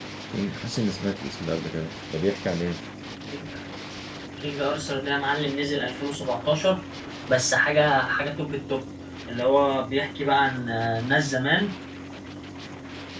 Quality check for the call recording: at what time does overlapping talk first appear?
none

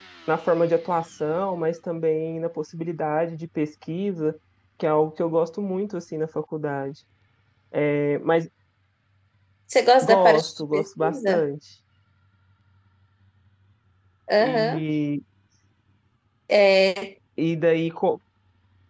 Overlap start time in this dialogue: 10 s

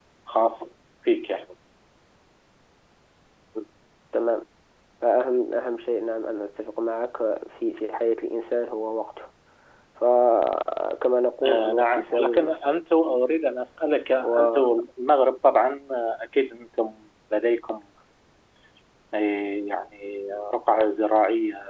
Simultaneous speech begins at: 11 s

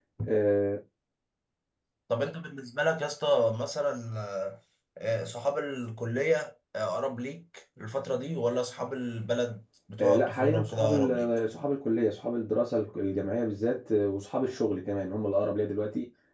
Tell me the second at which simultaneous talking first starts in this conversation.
10 s

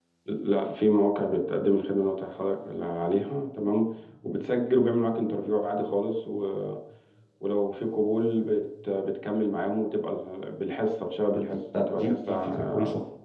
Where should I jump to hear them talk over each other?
11 s

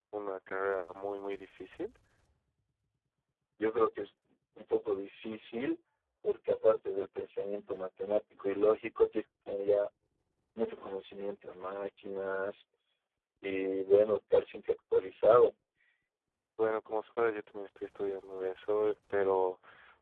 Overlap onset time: none

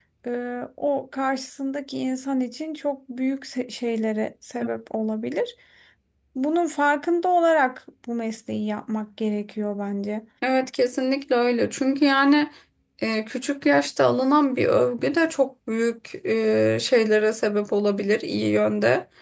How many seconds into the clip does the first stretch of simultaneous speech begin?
none

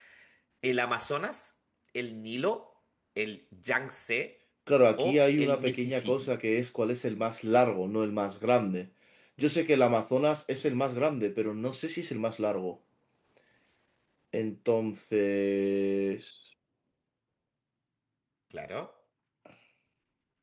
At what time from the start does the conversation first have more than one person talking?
5 s

